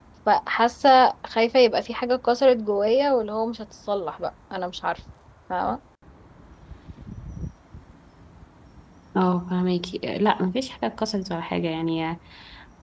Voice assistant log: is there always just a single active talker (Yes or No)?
Yes